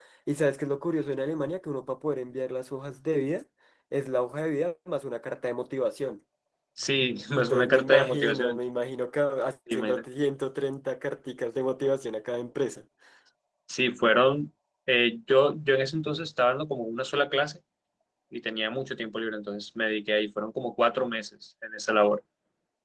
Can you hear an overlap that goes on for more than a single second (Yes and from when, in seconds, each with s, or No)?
Yes, from 7.4 s